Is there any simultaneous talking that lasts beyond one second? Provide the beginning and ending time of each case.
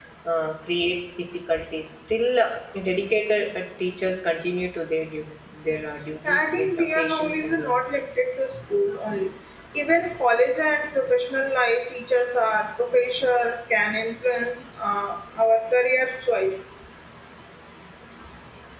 6.2-7.8

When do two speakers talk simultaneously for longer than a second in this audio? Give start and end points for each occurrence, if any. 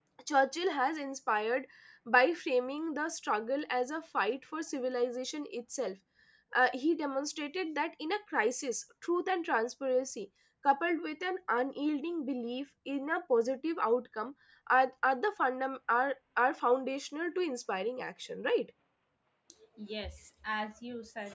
none

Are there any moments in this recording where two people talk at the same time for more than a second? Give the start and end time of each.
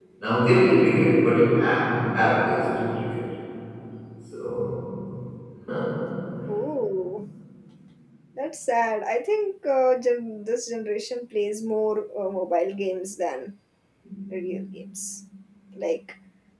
none

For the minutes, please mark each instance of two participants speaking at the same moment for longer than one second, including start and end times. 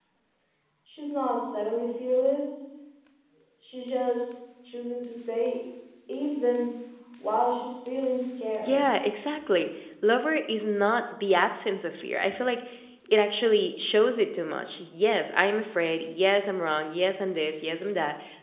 none

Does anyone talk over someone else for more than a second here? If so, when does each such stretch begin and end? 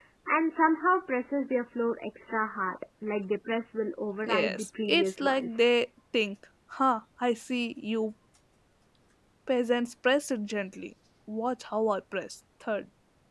4.2-5.6

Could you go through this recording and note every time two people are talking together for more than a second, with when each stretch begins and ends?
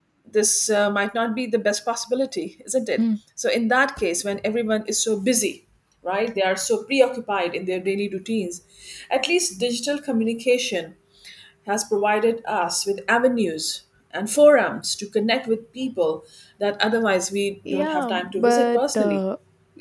17.7-19.2

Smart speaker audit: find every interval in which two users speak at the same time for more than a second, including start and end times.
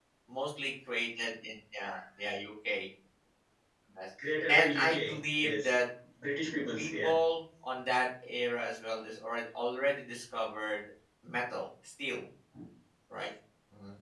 4.5-5.8

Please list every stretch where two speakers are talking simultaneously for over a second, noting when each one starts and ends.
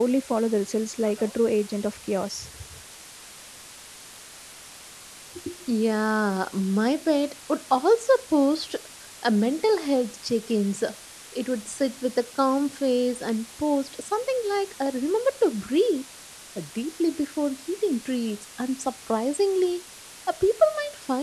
none

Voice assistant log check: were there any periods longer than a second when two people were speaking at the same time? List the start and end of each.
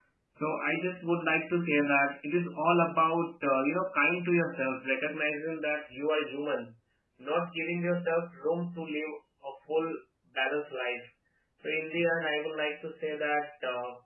none

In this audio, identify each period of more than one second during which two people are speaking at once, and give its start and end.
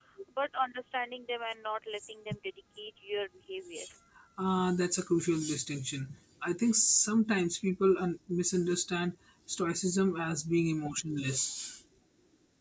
none

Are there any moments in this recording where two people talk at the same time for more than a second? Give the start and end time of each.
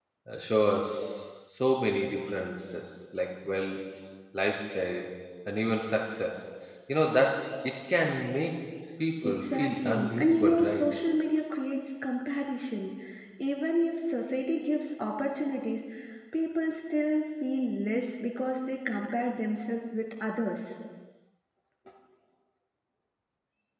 9.2-10.8

